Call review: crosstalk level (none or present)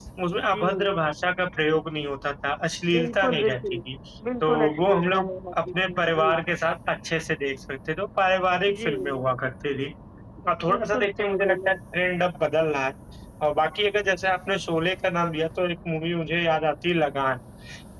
present